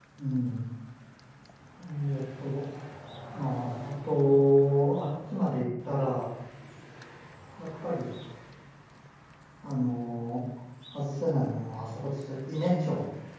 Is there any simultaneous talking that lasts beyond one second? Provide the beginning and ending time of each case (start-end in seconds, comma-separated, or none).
none